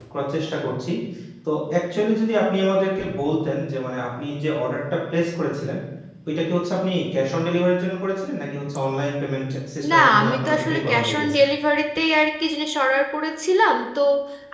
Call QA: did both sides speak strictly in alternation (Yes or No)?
No